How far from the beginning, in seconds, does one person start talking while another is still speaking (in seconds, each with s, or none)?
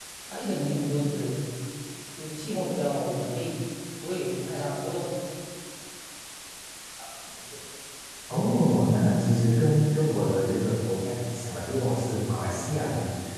none